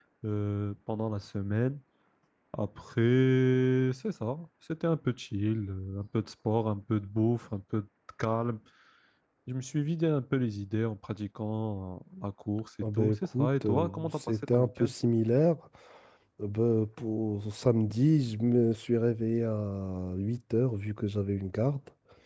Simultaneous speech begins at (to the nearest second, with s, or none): 13 s